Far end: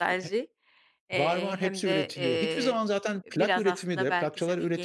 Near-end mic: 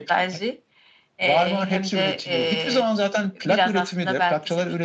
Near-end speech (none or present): none